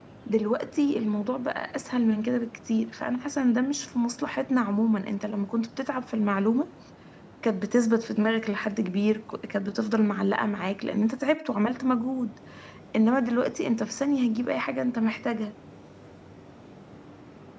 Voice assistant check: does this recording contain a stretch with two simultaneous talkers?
No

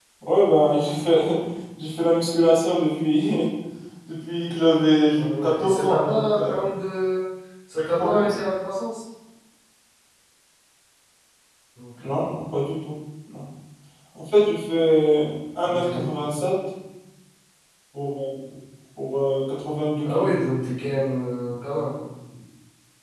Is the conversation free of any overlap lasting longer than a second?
No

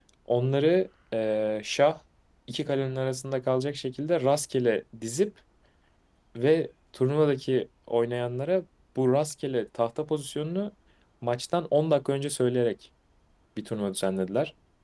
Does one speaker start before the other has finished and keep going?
No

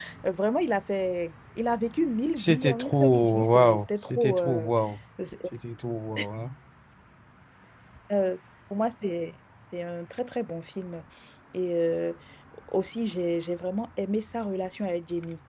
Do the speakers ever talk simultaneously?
Yes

